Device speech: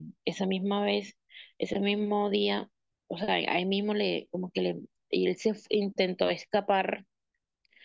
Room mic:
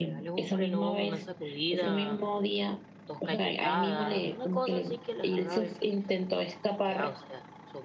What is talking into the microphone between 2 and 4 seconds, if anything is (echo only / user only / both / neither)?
both